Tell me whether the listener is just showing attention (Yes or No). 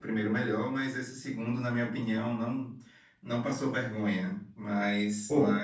Yes